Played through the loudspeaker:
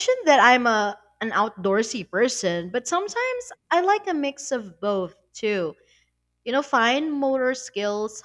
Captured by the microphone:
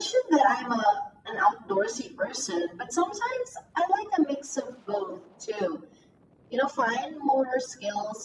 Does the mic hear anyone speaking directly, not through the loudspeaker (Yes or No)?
No